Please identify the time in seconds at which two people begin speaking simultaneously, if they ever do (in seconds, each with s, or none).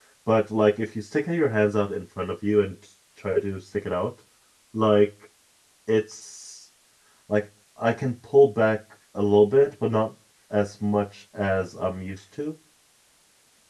none